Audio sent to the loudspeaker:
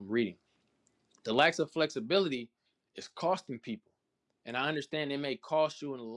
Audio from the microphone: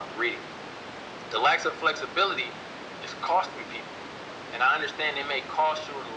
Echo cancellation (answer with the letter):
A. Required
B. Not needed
A